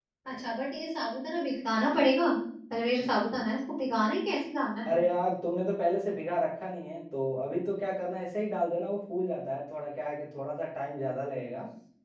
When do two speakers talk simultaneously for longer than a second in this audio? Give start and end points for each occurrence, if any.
none

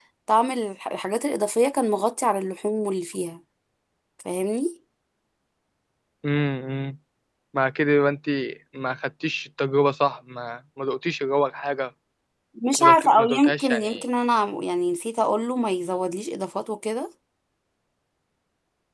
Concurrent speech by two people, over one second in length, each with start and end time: 12.8-14.0

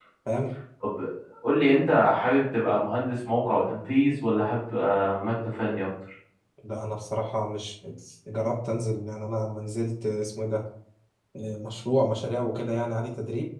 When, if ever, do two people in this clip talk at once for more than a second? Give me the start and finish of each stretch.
none

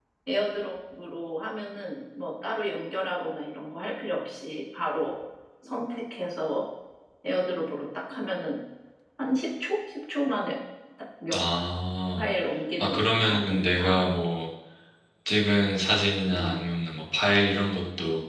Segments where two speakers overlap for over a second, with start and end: 12.8-14.0

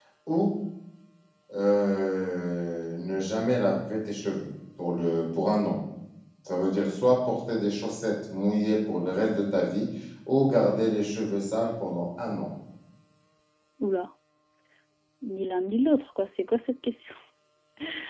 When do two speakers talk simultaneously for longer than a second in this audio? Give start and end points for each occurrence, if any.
none

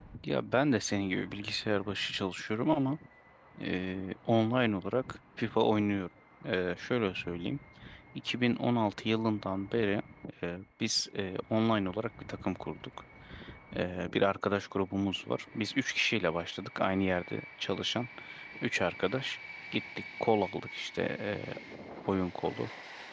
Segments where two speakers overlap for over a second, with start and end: none

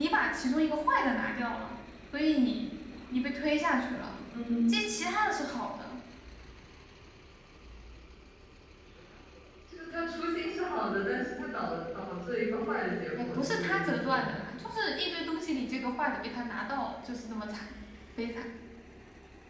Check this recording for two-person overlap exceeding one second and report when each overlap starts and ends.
13.2-14.4

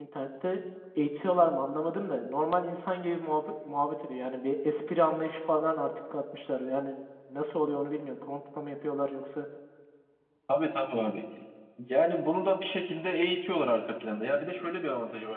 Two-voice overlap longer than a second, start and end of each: none

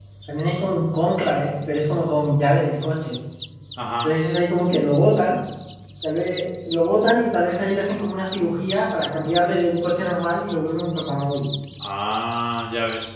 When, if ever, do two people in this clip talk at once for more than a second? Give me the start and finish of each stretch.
none

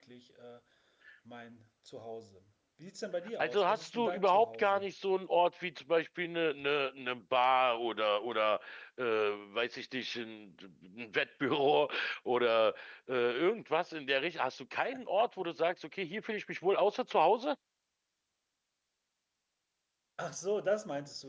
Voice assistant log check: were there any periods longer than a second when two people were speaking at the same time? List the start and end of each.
3.4-4.9

